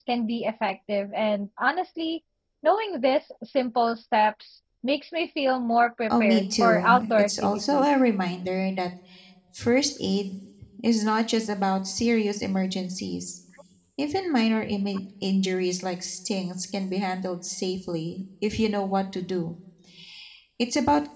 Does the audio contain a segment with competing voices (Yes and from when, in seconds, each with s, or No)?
Yes, from 6.1 s